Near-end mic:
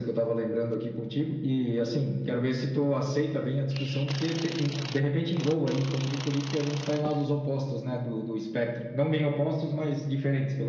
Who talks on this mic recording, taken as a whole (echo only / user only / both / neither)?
echo only